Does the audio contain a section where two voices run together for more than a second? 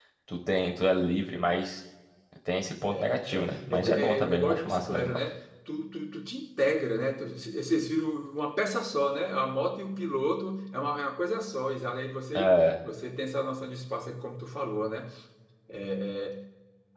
Yes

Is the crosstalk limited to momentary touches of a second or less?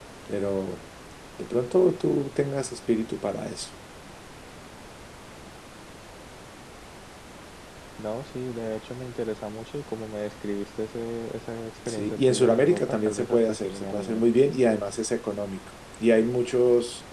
No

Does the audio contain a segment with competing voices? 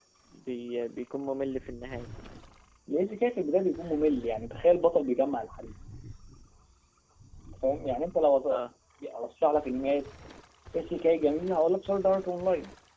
No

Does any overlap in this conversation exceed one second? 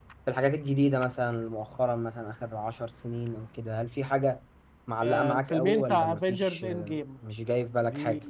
Yes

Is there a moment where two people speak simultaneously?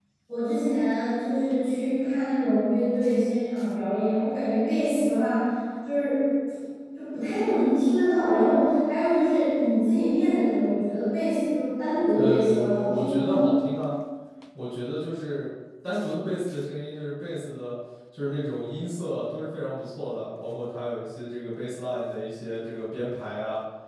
Yes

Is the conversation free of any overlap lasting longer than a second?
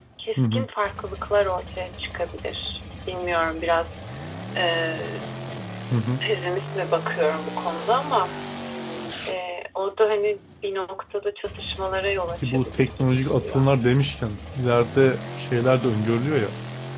No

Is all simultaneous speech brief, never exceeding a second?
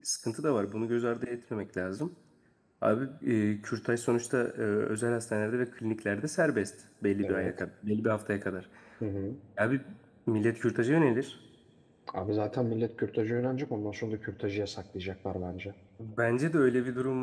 Yes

